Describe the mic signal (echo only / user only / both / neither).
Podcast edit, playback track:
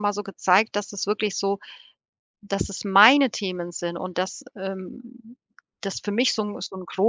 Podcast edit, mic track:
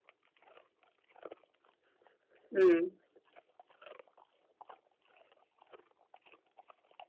user only